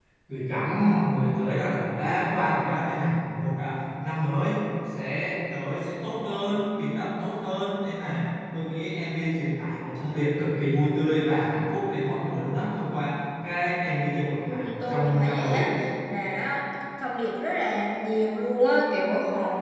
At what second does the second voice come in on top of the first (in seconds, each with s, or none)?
14.4 s